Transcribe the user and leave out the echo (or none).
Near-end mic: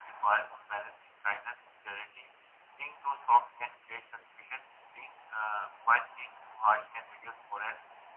none